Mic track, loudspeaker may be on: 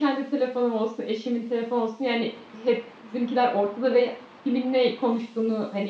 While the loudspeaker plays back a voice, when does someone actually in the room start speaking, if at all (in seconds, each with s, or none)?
none